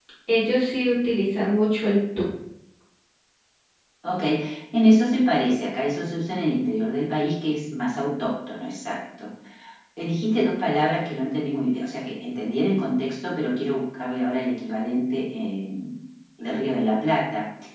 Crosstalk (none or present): none